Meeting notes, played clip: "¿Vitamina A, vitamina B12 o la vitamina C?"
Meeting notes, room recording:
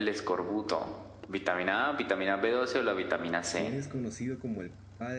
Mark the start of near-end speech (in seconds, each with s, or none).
3.4 s